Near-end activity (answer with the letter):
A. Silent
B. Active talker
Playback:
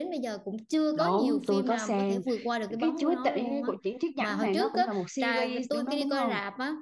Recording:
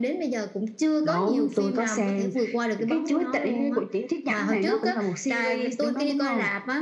A